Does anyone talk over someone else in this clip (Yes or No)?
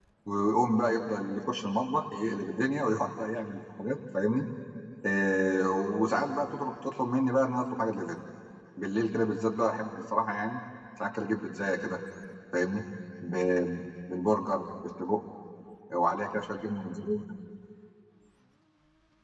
No